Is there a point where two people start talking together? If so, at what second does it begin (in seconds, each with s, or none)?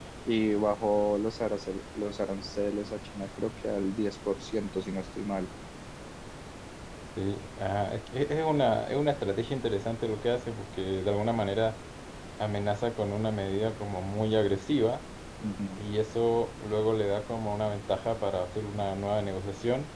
none